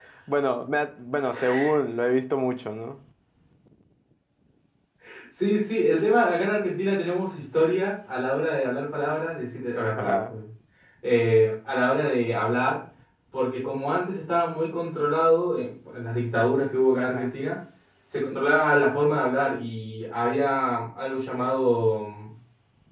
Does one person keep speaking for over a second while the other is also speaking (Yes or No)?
No